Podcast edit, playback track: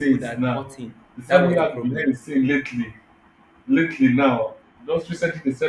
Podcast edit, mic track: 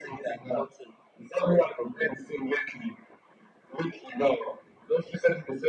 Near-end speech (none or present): none